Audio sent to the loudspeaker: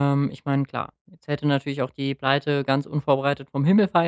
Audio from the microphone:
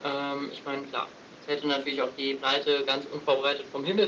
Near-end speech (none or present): none